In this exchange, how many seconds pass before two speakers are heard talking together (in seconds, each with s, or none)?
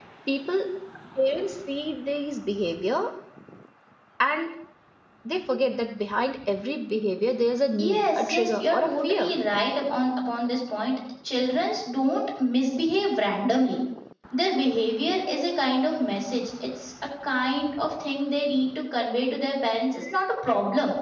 7.8 s